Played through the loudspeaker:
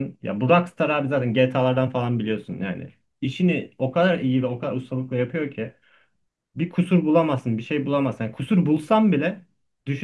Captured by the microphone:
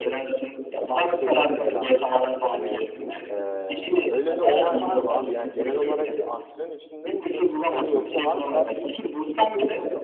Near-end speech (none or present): present